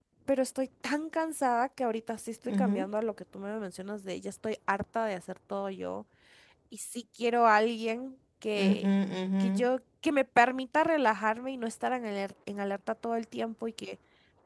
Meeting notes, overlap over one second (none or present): none